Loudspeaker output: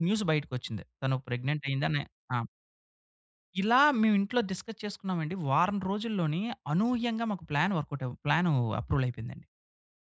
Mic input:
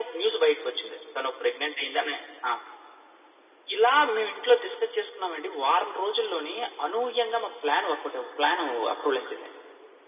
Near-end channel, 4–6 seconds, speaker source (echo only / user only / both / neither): echo only